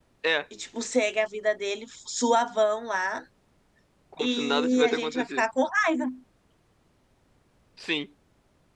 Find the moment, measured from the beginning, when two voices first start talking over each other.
4.2 s

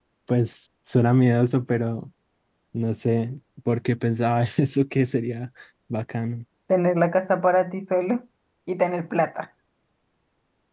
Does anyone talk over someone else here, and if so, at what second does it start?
none

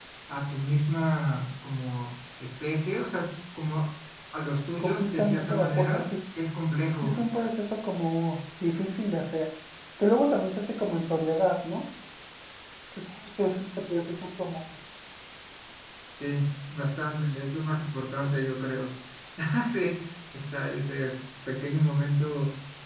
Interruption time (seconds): 4.8 s

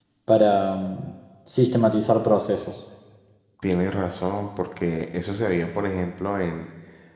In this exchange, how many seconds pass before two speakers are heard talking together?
none

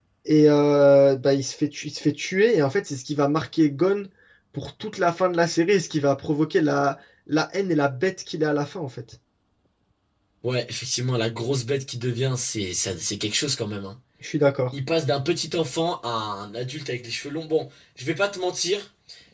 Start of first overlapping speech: none

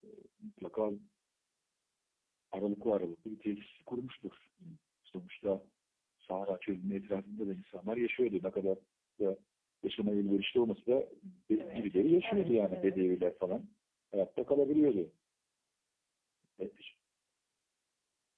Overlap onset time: 11.6 s

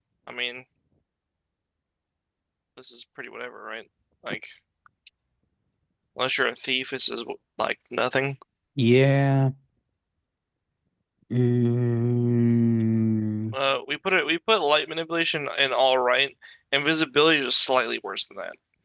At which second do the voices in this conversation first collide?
none

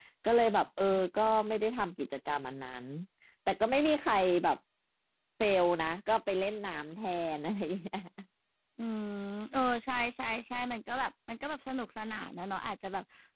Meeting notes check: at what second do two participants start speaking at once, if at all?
none

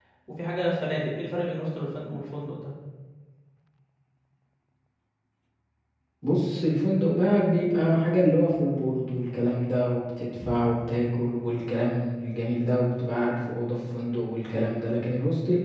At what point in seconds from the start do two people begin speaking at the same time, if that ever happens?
none

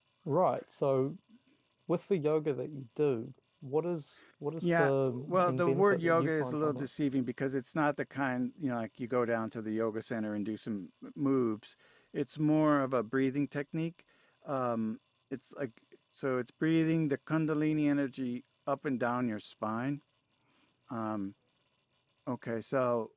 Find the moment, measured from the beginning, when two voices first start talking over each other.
4.6 s

